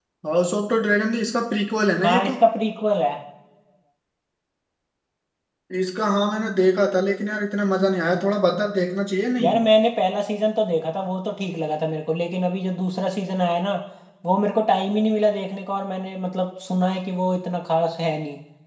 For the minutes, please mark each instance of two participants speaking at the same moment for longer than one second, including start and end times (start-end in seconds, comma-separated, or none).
none